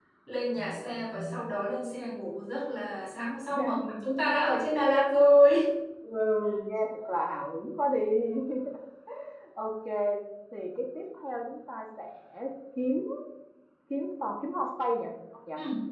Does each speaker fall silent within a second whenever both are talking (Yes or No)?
Yes